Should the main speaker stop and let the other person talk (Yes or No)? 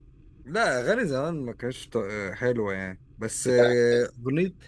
No